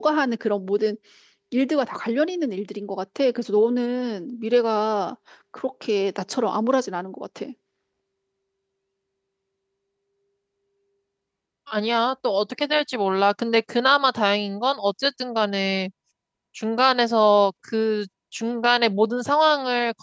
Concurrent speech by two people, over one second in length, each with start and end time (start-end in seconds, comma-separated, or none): none